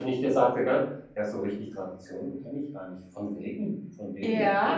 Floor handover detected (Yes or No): Yes